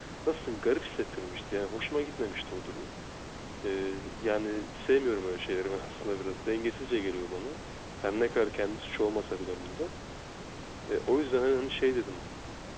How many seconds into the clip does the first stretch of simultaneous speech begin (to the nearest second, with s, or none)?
none